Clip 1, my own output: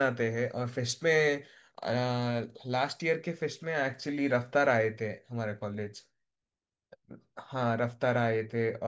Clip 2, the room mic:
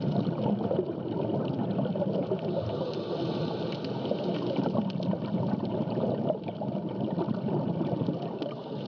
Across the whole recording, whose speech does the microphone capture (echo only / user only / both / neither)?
neither